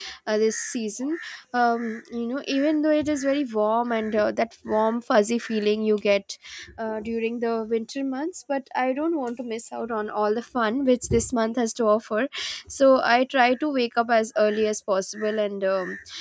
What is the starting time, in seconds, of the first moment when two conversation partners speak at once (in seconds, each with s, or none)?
none